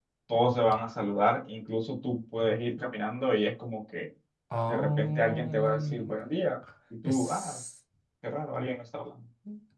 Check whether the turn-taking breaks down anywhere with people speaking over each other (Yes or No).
Yes